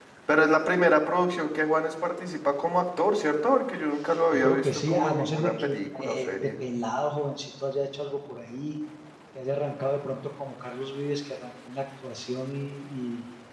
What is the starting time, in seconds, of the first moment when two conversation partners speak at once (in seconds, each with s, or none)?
4.1 s